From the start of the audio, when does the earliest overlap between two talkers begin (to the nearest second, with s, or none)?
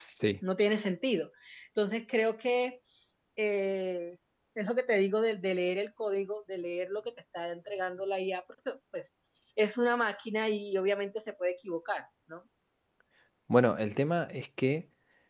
none